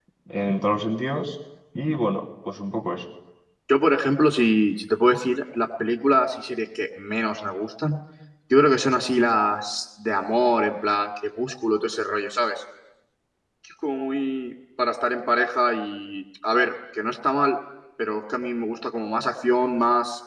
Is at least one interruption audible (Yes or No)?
No